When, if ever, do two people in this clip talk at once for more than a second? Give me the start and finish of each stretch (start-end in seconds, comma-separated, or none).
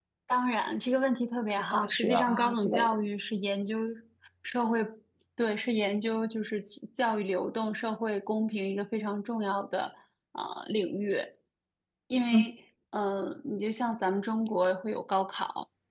1.7-2.9